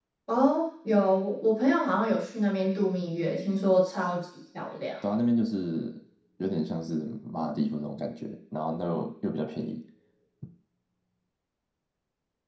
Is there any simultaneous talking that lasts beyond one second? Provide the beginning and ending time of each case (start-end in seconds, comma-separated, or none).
none